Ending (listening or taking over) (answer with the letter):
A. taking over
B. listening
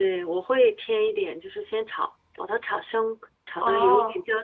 B